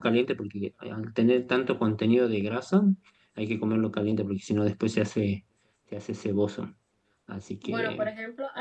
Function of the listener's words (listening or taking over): taking over